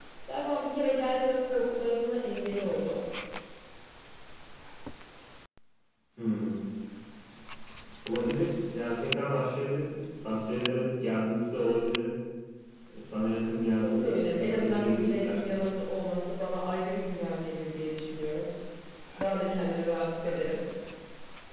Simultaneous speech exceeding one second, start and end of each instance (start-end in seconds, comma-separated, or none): 13.8-15.4